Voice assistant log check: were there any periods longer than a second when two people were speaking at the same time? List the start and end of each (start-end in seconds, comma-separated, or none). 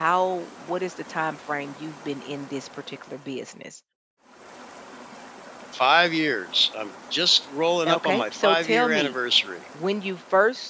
7.9-9.1